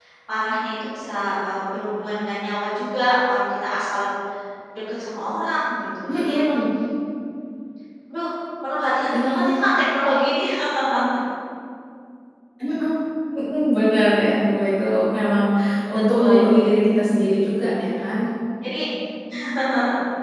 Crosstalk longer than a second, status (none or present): none